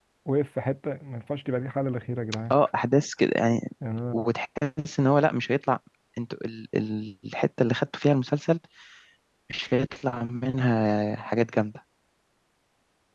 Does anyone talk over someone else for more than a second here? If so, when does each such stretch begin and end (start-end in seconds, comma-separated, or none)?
none